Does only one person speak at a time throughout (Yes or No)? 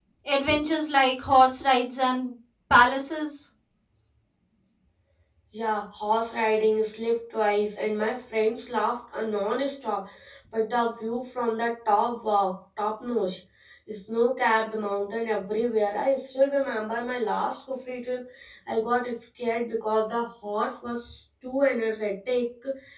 Yes